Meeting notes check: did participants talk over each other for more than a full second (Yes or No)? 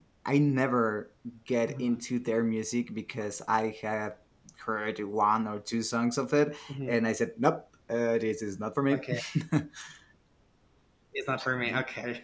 No